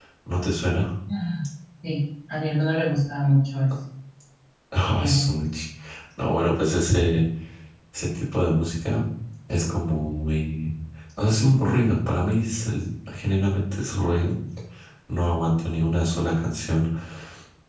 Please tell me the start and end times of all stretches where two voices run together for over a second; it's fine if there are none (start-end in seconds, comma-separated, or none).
none